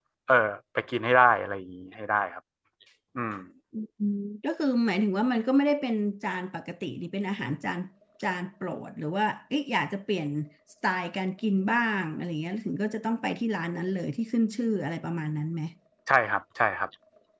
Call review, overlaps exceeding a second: none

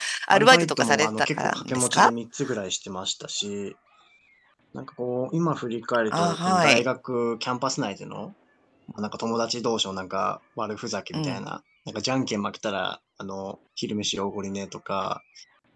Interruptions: present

